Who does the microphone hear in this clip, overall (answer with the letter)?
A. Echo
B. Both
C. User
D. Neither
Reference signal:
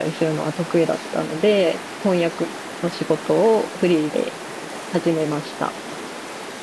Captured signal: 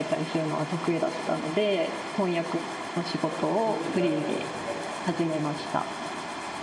B